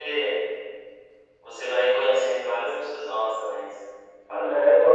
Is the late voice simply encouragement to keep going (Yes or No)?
No